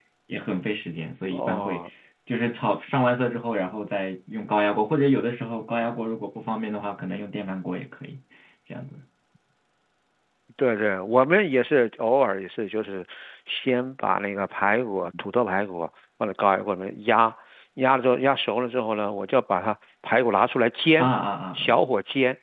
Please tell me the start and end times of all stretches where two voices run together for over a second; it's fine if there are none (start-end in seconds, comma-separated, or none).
none